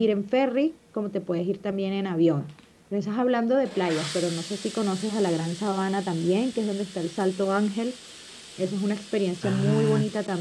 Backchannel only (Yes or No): No